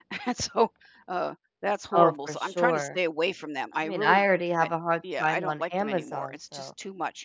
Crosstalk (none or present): present